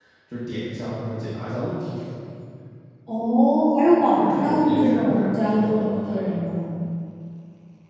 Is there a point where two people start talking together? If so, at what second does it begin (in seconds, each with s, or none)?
4.2 s